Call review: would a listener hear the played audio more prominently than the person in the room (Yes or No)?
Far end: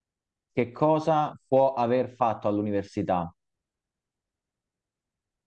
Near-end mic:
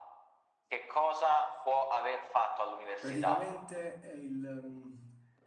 Yes